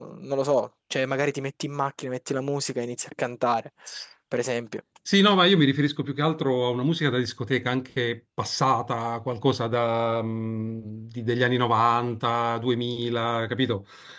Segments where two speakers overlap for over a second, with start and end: none

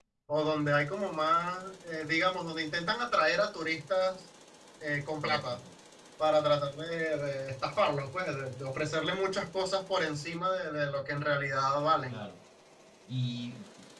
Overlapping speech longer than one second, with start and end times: none

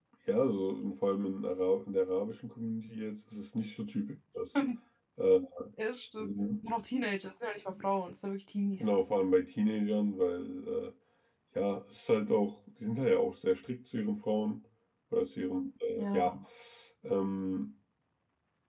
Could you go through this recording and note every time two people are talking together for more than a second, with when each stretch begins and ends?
none

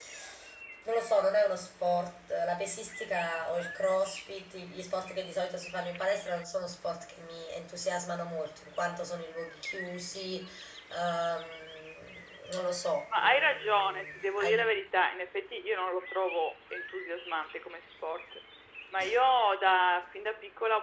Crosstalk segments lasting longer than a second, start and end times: 13.2-14.7

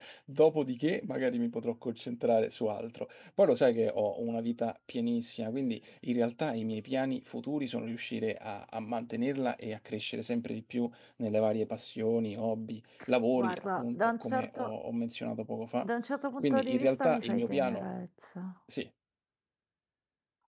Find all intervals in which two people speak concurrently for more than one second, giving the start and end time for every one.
13.4-14.7, 16.4-17.8

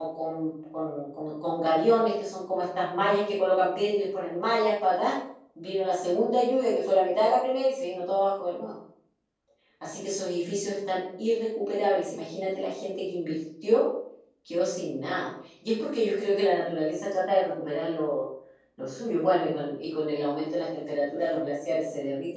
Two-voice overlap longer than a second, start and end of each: none

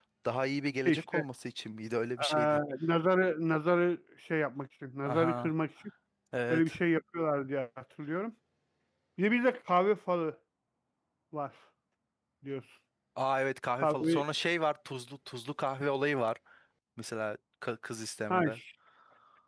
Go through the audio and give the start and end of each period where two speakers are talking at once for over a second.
none

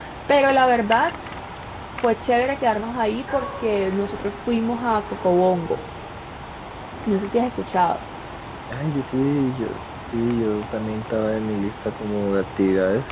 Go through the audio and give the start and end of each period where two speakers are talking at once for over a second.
none

